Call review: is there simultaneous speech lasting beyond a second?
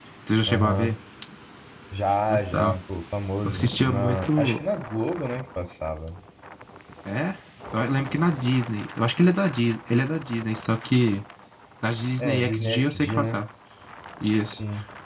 Yes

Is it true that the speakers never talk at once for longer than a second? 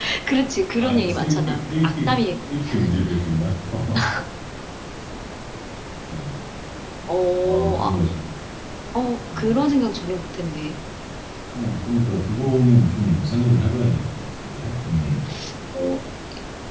No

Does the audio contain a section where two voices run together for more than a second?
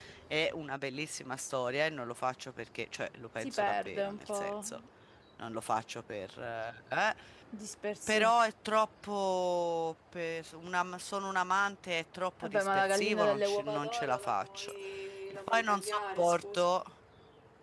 Yes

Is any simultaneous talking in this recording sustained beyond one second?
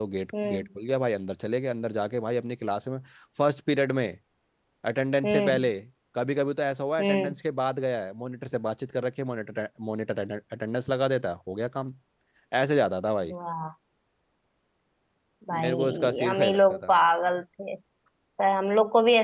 Yes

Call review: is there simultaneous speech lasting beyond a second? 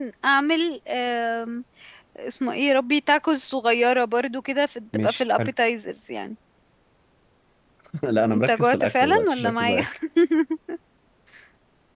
Yes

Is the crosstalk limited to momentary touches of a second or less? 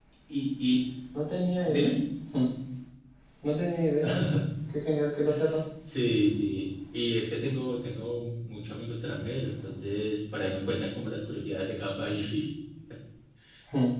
Yes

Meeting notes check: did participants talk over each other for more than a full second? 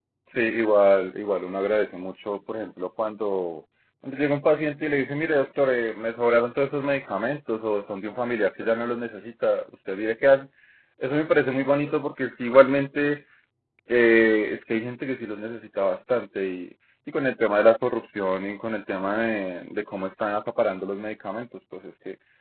No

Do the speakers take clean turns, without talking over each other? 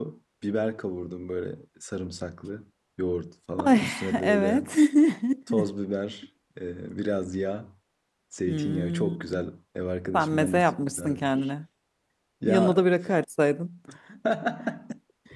No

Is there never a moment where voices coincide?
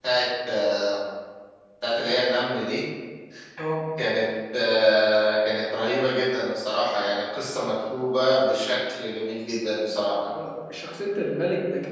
Yes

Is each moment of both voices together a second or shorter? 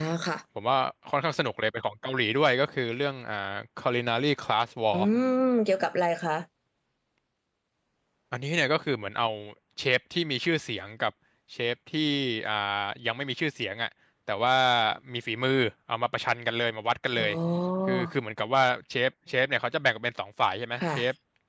Yes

